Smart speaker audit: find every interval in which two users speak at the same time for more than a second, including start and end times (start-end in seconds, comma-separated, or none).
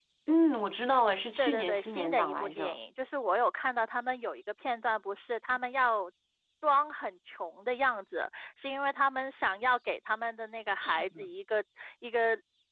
1.4-2.8